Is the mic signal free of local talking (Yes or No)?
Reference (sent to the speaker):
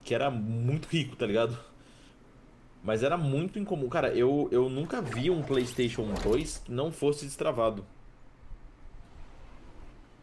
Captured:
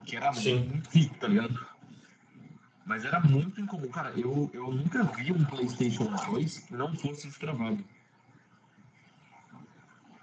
No